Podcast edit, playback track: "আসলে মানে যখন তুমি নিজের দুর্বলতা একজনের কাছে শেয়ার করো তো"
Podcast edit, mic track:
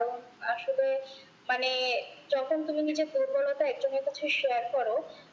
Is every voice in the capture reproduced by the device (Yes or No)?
Yes